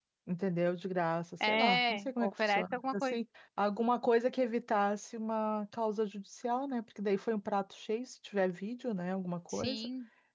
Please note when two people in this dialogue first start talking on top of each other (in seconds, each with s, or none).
1.4 s